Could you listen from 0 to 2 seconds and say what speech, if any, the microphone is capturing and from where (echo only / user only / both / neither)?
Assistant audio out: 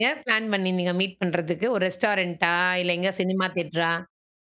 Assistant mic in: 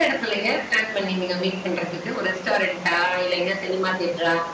echo only